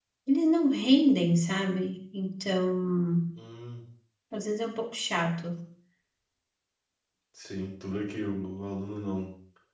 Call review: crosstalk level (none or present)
none